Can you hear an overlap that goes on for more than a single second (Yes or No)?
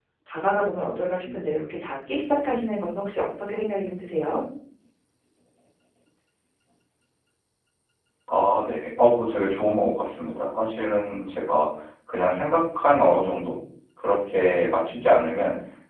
No